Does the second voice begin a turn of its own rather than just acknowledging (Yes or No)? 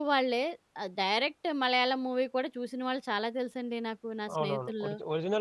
Yes